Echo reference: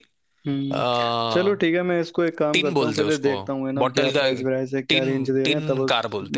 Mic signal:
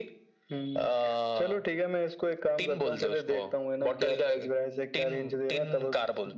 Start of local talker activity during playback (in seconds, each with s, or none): none